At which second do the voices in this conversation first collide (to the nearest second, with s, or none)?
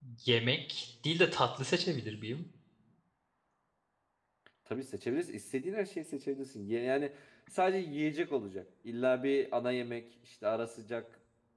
none